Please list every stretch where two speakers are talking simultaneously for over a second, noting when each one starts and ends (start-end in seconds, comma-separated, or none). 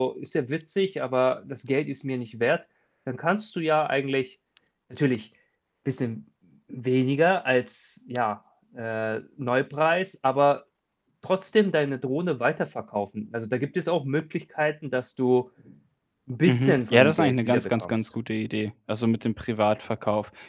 16.4-17.9